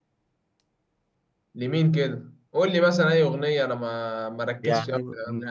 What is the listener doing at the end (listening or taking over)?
taking over